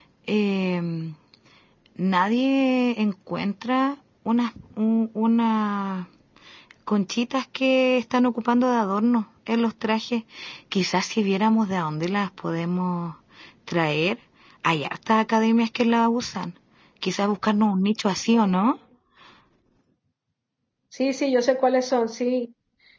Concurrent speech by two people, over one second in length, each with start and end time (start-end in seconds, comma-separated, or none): none